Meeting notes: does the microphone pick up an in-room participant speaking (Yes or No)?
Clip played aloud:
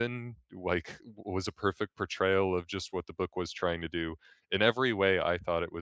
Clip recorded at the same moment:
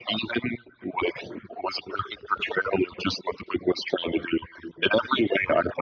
No